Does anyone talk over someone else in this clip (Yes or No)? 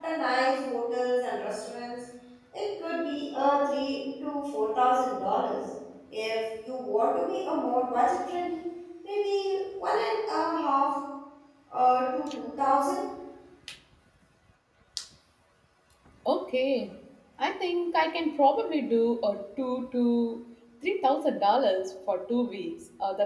No